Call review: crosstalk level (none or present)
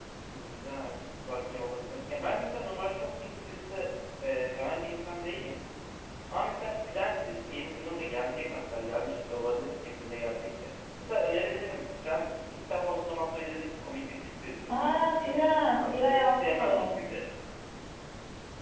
present